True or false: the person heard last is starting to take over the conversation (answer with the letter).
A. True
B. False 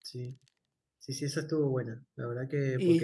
A